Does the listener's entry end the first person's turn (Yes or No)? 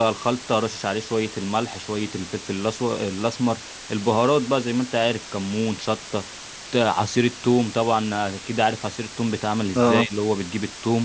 No